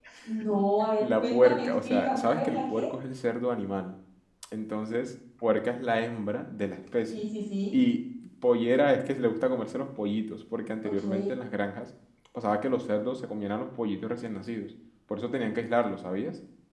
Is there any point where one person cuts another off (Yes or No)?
Yes